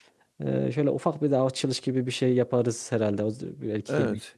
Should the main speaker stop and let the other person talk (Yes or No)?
Yes